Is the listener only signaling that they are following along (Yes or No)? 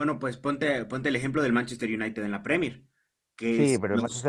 No